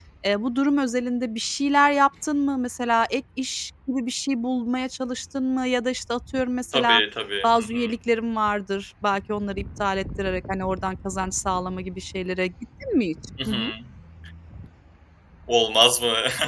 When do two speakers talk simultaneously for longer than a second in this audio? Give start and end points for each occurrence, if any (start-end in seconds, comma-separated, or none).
none